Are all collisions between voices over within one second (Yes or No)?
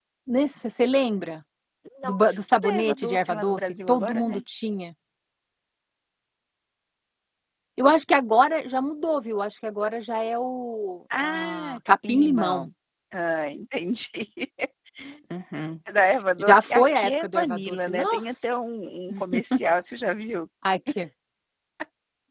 No